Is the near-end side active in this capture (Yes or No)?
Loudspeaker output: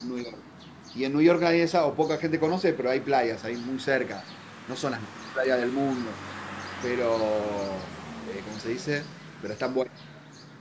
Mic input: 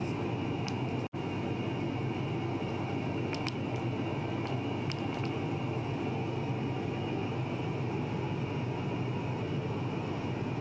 No